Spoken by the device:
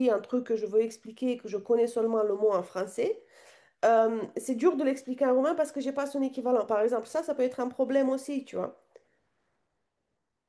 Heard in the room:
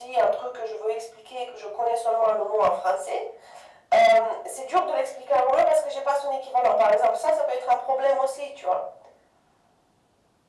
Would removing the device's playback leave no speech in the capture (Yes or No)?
Yes